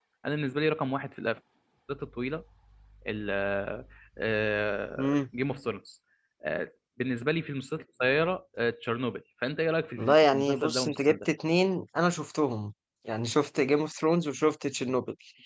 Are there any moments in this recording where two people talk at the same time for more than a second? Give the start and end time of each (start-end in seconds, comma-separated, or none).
10.0-11.3